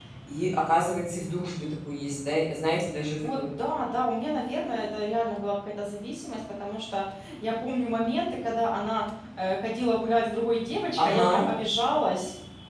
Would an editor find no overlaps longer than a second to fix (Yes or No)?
Yes